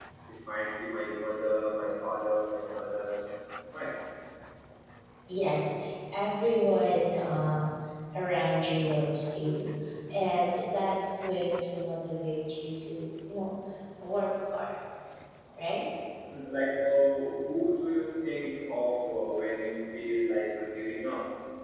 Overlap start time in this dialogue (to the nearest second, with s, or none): none